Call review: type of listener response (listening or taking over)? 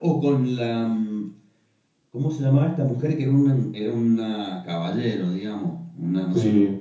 taking over